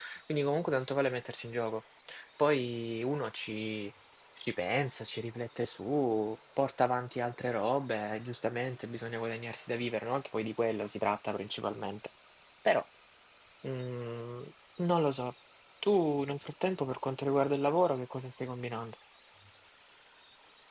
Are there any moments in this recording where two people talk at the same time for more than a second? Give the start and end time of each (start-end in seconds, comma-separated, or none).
none